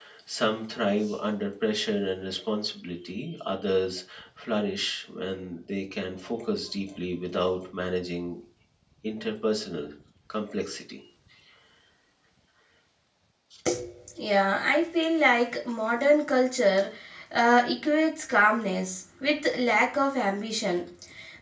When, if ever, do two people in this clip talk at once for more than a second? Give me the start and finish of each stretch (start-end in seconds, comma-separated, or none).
none